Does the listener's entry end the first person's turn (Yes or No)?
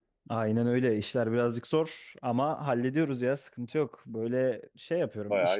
No